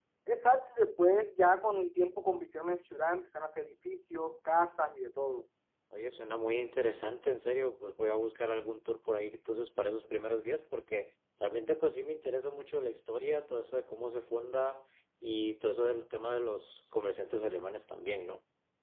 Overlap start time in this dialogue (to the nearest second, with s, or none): none